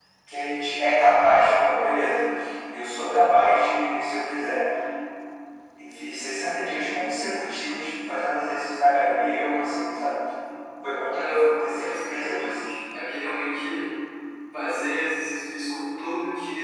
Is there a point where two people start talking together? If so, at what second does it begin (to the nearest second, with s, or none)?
11 s